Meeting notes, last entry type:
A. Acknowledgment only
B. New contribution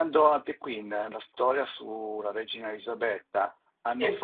A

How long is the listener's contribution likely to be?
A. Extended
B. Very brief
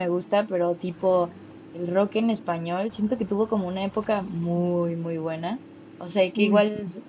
B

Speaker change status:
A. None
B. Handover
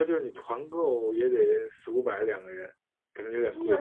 B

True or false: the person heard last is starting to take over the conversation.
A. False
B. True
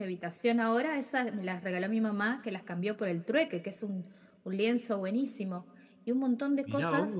B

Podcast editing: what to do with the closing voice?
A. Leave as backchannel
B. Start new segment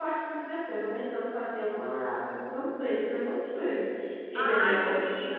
B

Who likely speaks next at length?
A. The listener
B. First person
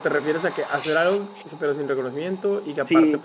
A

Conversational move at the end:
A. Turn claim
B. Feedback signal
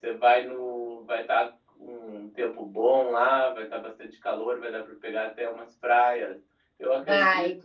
B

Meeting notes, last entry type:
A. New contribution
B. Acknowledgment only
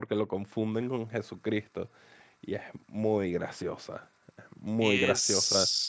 A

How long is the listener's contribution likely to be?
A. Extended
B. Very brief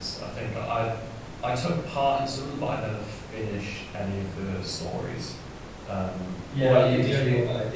A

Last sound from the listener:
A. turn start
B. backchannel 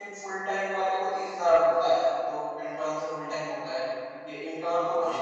A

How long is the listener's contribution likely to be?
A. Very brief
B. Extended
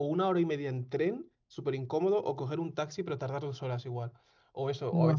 A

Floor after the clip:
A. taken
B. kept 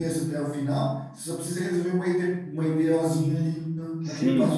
A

